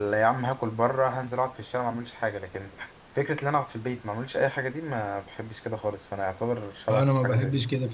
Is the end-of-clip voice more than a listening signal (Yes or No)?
Yes